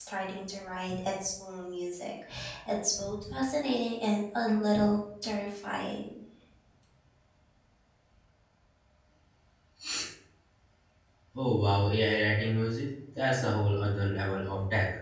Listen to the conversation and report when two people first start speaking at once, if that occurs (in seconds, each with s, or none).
none